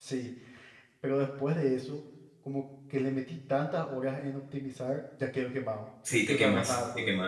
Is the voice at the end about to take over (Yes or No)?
Yes